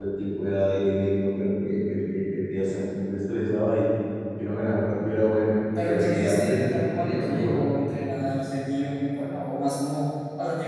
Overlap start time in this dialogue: 5.8 s

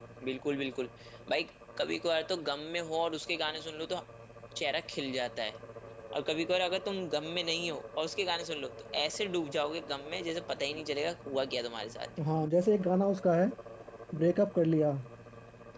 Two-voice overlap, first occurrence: none

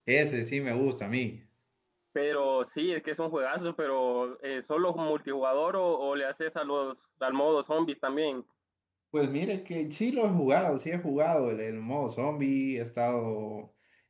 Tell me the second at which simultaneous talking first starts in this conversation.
none

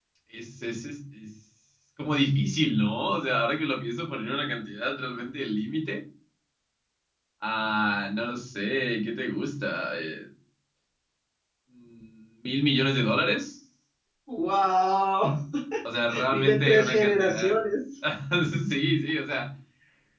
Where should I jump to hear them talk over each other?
16.3 s

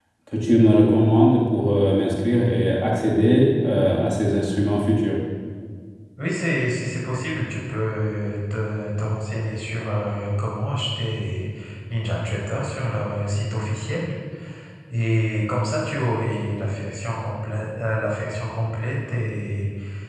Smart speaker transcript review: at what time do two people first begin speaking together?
none

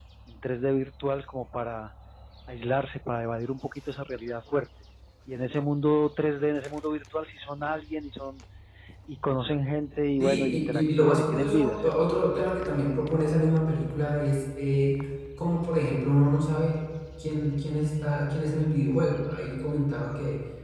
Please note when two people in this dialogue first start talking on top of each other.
10.2 s

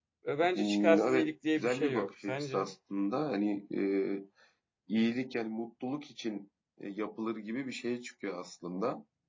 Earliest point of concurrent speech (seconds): 0.6 s

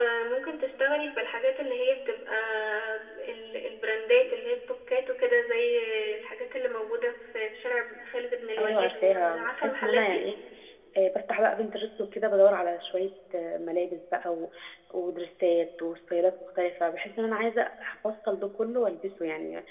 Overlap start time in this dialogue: 8.6 s

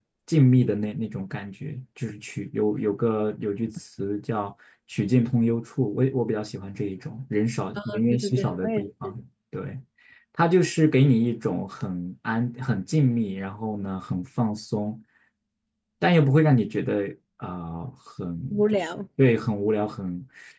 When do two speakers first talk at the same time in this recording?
7.9 s

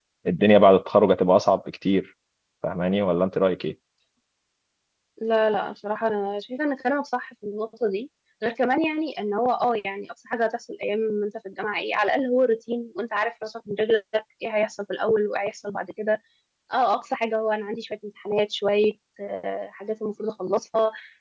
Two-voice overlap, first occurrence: none

